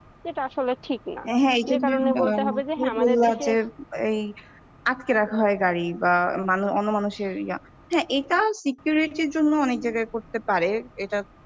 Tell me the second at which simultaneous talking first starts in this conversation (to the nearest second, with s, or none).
2 s